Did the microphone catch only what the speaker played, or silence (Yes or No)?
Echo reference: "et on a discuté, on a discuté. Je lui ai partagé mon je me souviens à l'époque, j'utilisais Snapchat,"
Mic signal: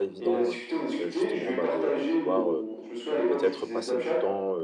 No